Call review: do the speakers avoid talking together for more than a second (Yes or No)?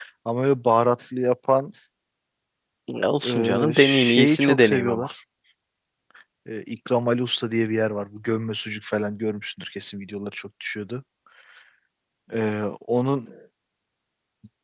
No